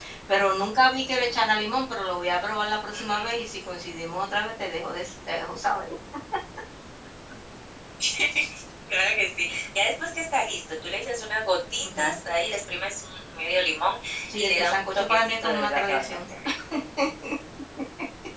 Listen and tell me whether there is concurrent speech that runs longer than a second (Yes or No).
Yes